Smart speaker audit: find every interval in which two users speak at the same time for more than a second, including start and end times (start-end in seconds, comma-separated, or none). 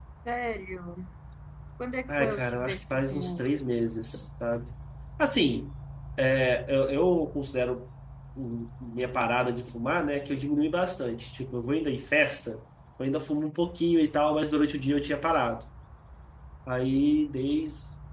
2.1-3.4